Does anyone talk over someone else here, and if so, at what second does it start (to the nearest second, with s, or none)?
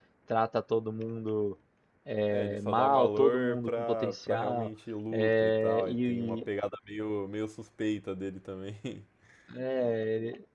2 s